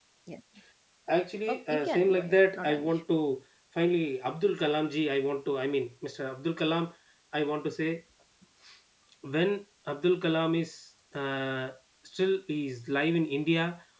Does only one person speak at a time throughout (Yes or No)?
No